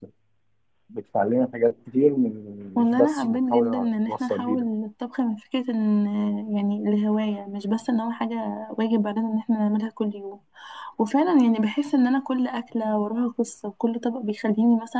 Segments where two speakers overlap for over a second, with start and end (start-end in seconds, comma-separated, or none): 2.8-4.6